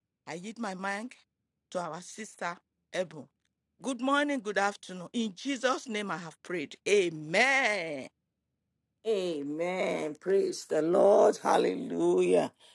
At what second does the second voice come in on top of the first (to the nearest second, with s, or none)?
none